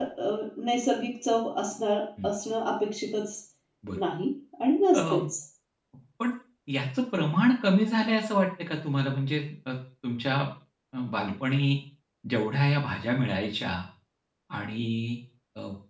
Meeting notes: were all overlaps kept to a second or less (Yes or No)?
Yes